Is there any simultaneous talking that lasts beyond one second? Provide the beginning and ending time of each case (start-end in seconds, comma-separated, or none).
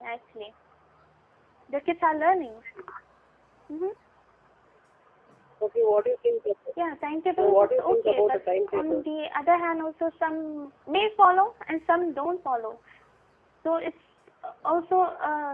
7.4-9.0